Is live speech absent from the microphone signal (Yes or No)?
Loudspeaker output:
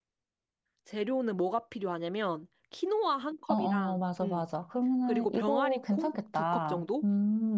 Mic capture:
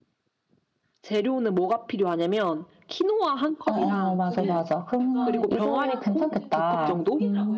No